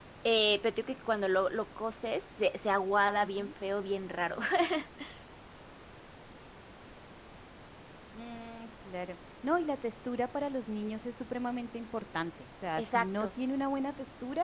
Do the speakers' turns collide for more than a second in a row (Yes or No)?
No